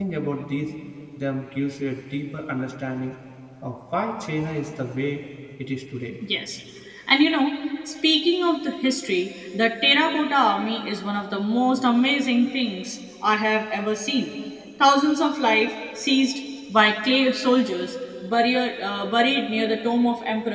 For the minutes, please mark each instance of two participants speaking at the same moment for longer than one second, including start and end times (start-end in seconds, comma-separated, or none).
none